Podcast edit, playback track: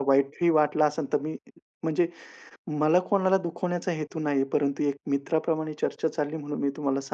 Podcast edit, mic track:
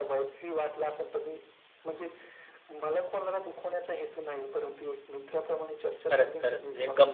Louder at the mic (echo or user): user